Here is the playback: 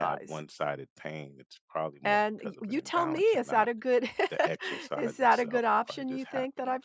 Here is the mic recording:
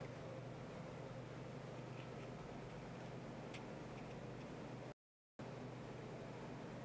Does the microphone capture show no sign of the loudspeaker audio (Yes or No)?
Yes